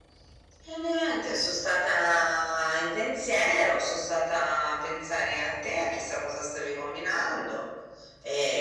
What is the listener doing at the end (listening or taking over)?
taking over